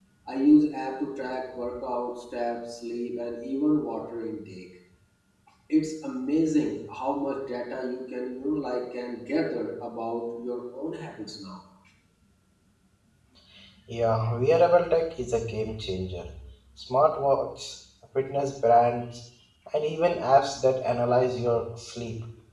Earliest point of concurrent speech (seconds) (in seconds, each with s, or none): none